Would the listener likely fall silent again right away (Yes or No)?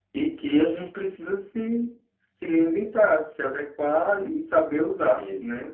Yes